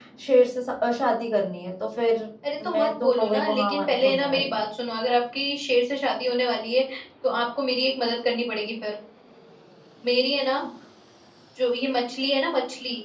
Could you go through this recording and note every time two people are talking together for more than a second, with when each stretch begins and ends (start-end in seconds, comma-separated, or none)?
2.6-4.6